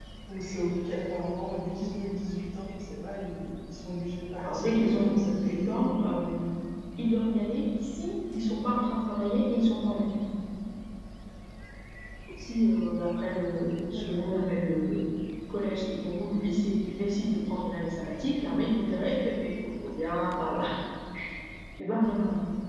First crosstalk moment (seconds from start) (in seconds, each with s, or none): 4.4 s